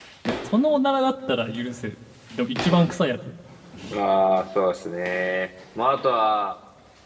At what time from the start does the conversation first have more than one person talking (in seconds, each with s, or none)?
none